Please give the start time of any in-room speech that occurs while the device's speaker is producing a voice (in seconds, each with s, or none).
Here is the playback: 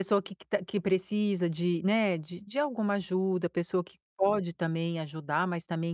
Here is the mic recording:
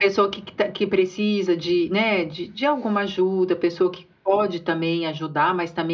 none